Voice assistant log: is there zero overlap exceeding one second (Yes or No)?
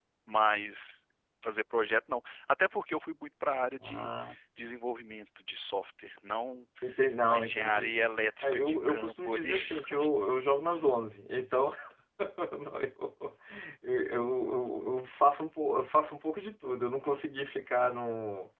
No